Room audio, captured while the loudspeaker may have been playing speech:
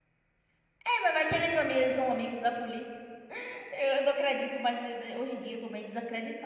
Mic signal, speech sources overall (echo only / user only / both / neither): user only